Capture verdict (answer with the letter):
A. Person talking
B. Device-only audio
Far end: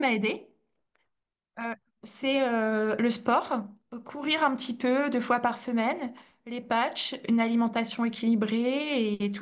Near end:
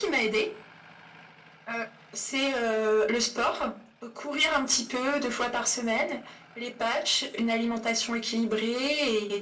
B